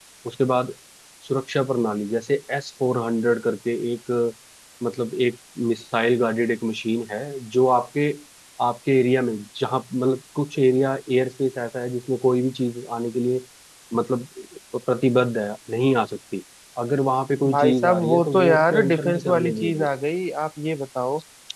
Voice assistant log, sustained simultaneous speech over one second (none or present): present